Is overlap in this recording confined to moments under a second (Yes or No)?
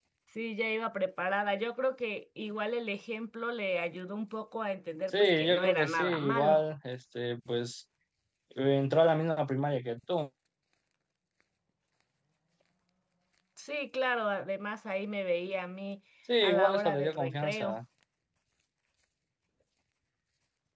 No